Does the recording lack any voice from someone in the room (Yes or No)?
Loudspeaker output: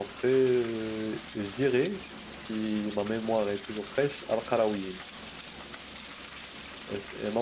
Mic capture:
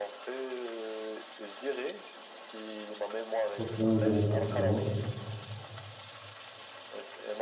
No